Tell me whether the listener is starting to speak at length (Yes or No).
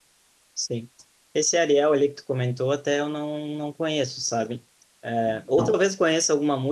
No